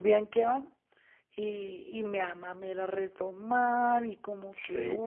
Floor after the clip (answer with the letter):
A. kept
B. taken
B